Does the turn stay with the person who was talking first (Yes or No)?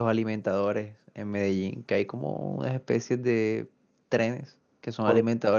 Yes